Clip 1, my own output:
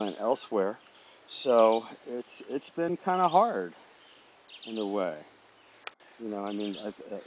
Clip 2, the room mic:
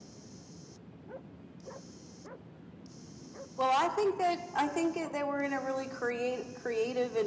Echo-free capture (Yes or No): Yes